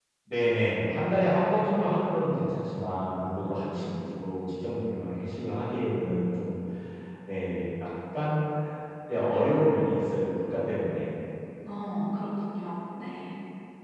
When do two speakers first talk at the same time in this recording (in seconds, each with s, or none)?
none